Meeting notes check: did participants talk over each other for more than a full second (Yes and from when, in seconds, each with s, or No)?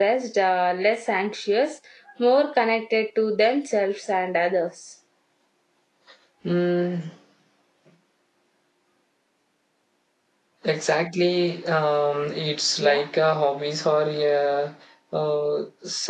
No